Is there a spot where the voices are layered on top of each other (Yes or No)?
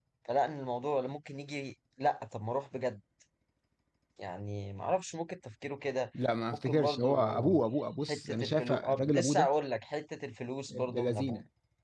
Yes